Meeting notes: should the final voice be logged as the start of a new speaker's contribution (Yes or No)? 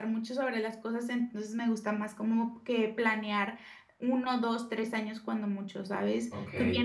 No